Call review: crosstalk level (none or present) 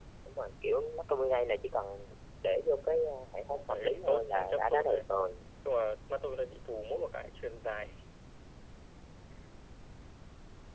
present